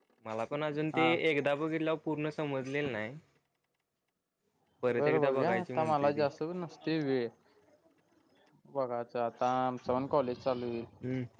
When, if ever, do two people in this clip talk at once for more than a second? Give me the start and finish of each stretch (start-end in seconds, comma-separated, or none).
5.0-6.2